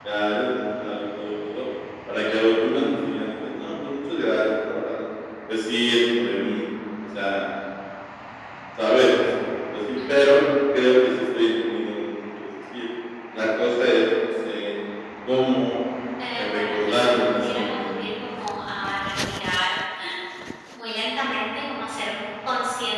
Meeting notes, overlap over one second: present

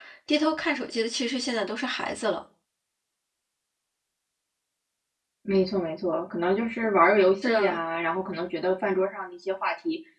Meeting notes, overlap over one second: none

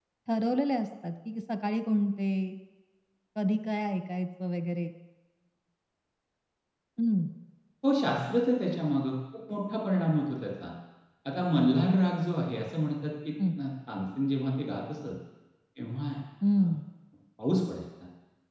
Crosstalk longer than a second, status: none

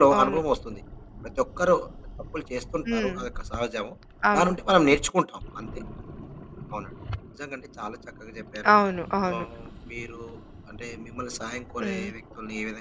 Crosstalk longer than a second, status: none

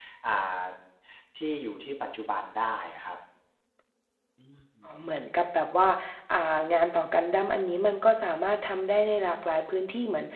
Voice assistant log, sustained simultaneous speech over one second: none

